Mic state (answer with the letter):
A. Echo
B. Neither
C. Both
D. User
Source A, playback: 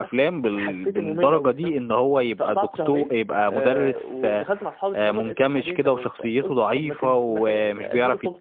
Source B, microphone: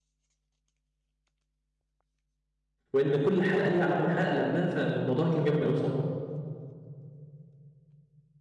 D